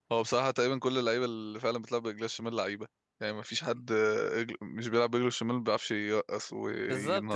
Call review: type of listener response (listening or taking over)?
taking over